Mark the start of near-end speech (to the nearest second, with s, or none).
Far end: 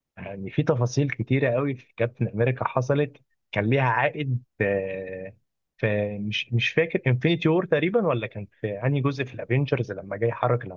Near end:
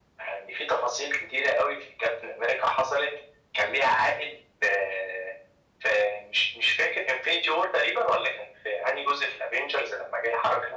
none